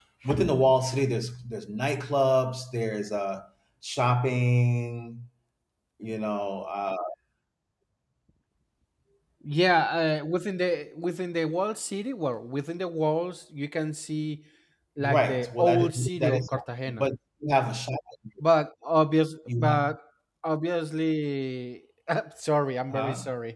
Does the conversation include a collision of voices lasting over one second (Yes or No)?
Yes